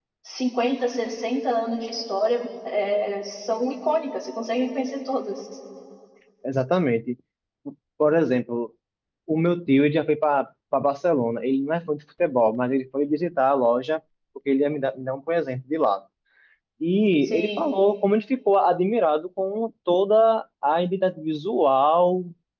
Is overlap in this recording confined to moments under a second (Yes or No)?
Yes